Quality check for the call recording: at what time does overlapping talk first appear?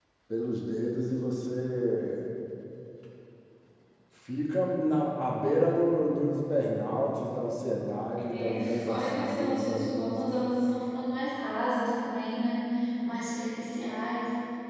8 s

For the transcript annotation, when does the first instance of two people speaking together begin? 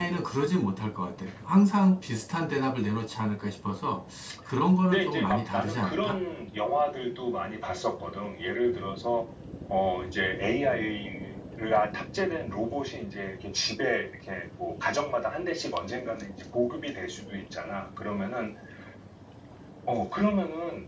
5 s

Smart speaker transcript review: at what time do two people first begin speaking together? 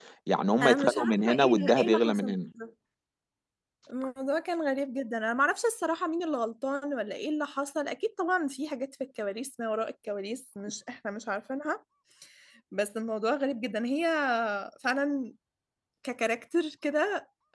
1 s

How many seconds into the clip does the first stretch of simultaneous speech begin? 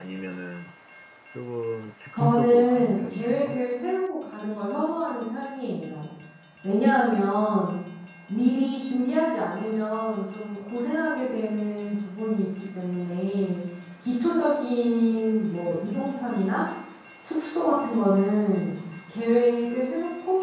2 s

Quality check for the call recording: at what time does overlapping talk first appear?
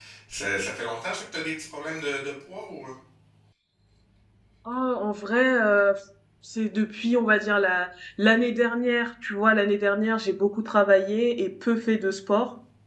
none

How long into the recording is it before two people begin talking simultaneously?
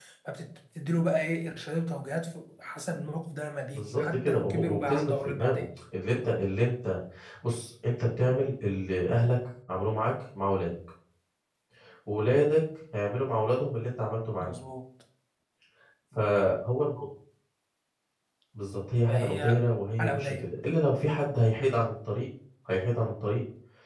4 s

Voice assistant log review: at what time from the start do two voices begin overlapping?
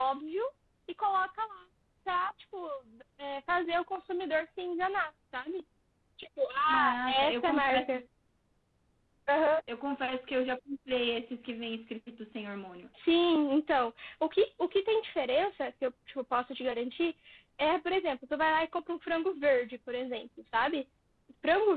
7 s

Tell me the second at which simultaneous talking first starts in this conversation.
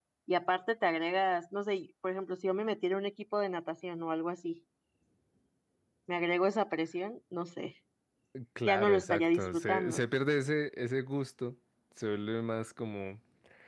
9 s

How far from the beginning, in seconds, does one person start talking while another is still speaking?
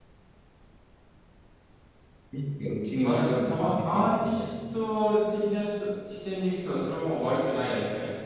3 s

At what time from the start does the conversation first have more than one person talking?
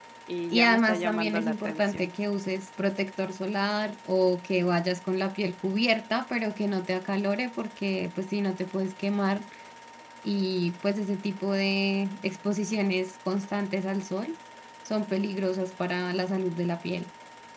1 s

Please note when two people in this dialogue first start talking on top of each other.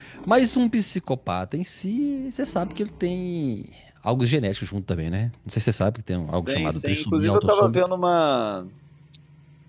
6 s

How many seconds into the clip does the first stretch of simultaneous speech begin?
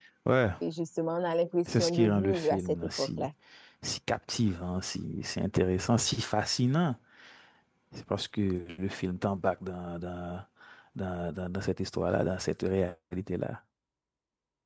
2 s

